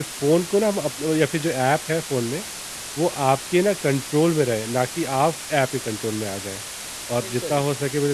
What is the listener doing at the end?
listening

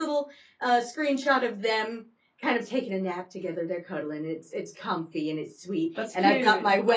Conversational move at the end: listening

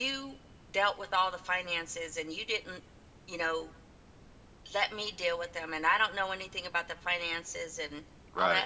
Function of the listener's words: listening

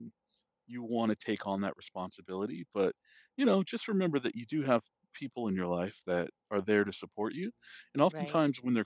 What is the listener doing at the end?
listening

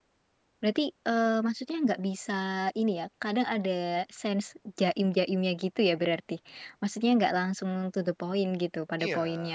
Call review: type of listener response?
taking over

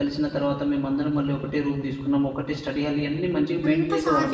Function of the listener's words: taking over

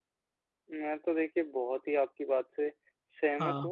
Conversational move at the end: listening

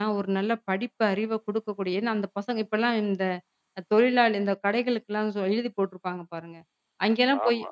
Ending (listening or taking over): listening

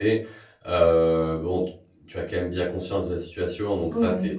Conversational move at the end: listening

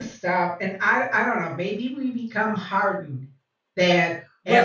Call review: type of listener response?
listening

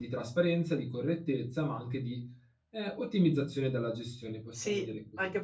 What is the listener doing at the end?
taking over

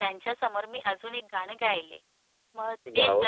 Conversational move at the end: listening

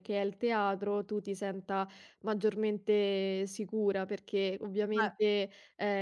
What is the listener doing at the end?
listening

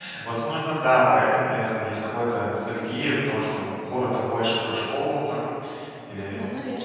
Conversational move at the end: listening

